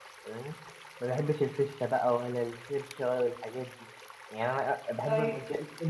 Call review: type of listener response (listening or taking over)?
listening